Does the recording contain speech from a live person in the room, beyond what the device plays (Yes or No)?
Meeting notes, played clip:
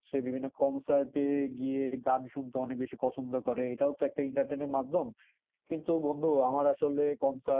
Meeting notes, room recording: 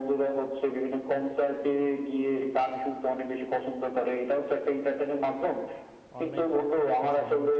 Yes